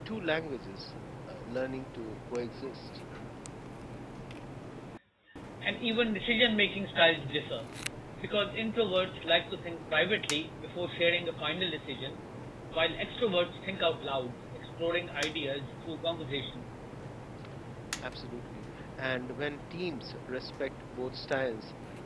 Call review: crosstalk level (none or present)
none